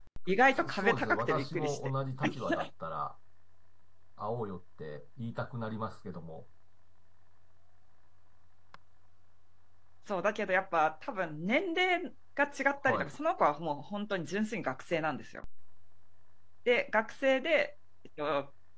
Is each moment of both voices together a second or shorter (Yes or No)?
No